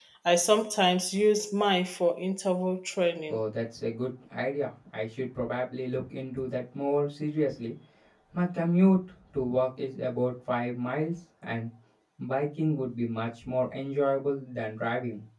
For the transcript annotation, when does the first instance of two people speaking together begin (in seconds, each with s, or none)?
none